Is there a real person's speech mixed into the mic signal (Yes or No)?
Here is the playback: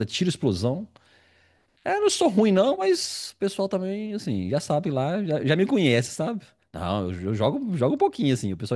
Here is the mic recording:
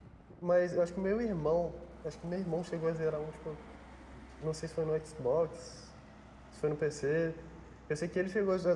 Yes